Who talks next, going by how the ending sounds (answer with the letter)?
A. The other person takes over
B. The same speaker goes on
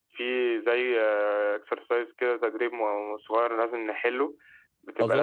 A